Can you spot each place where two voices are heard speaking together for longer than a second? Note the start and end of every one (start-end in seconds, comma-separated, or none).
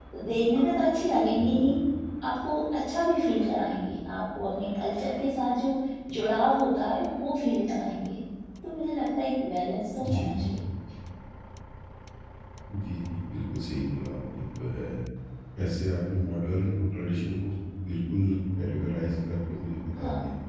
none